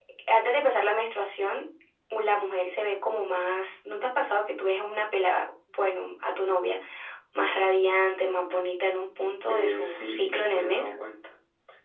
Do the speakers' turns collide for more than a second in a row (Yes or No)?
Yes